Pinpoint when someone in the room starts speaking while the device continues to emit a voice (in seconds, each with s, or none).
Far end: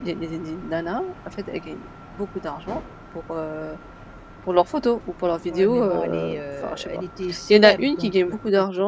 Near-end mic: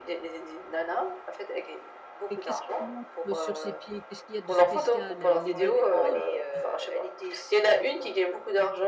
2.3 s